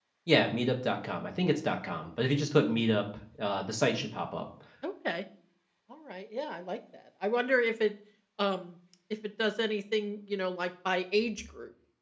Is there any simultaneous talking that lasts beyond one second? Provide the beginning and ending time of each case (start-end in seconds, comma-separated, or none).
none